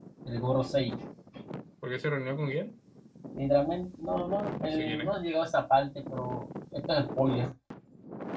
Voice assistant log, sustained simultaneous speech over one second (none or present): none